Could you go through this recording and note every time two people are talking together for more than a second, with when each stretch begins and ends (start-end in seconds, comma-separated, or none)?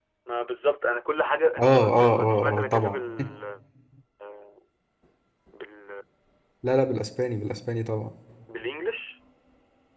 1.6-3.0